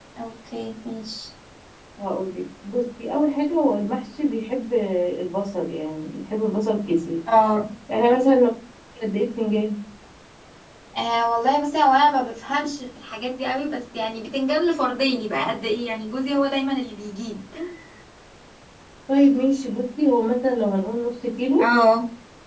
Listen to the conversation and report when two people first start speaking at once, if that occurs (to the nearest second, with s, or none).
none